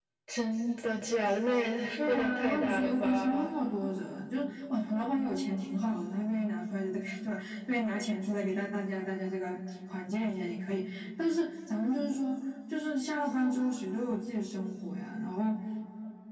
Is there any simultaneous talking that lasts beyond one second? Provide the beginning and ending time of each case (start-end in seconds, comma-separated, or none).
2.0-3.5